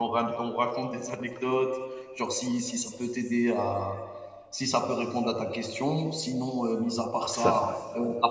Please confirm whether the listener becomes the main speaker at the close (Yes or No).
No